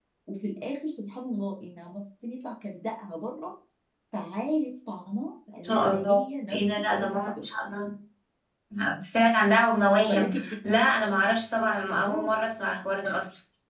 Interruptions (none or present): present